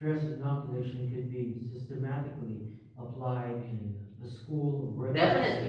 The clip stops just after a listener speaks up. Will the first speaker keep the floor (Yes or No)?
No